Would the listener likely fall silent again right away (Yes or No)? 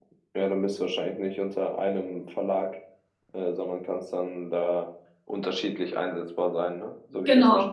No